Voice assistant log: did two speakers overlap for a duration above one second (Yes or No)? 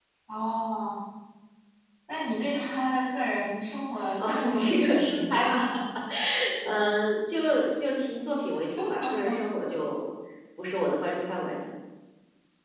Yes